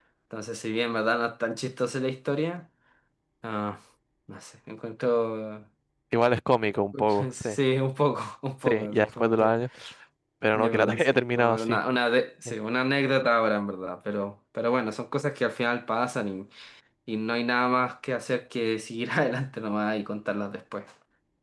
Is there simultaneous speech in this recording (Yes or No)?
Yes